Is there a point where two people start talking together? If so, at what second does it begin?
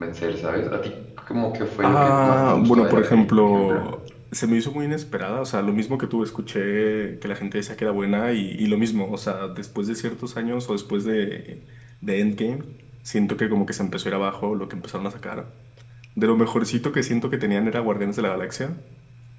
1.8 s

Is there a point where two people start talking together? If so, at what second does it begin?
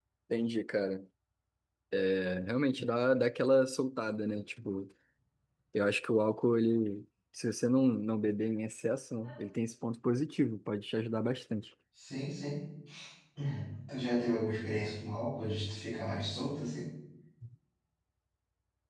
none

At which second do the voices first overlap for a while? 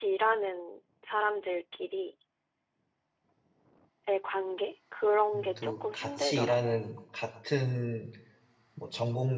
5.3 s

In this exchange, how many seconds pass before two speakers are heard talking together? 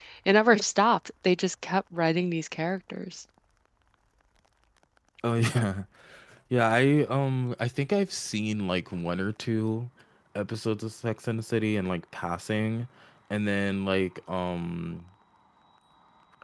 none

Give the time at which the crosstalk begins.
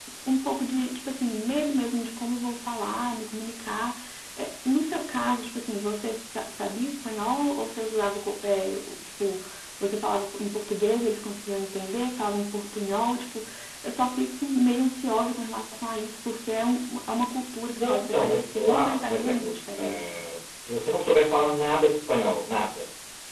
17.8 s

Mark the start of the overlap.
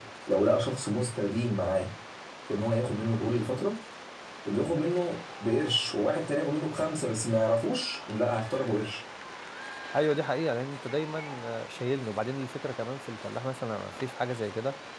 none

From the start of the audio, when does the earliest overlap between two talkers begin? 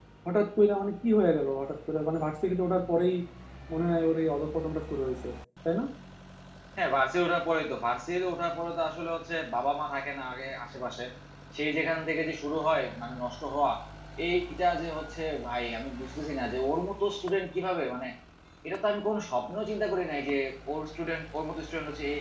none

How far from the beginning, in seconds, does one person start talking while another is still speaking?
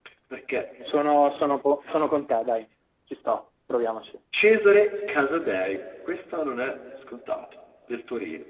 none

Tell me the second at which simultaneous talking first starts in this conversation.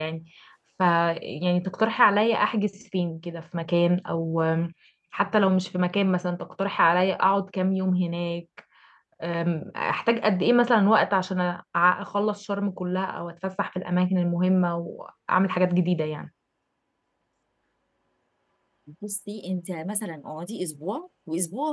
none

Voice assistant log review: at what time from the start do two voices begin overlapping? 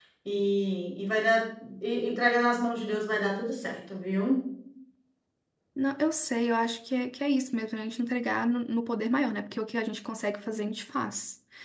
none

